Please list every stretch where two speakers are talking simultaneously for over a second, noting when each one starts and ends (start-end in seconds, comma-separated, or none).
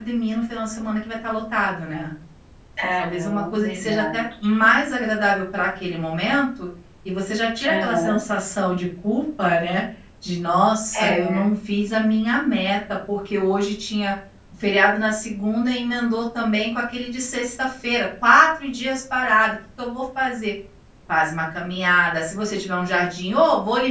3.0-4.2